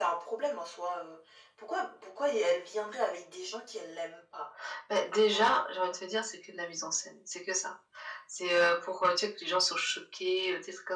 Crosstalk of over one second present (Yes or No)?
No